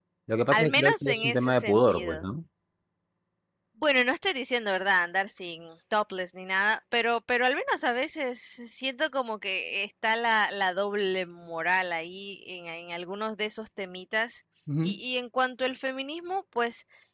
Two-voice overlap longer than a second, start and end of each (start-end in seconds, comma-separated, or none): 0.5-2.2